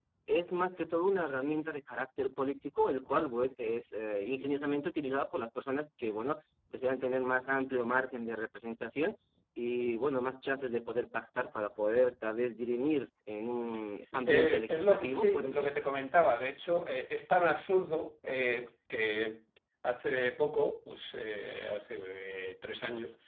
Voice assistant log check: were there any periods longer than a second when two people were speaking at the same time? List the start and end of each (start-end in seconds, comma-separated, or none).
14.3-15.7